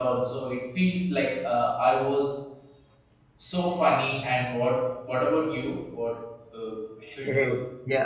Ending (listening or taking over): taking over